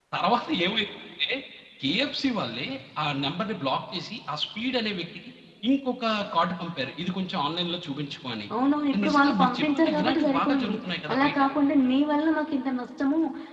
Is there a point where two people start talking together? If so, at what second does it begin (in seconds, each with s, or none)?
9.1 s